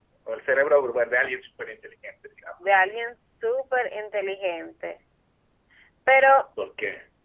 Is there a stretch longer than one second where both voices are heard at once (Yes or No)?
No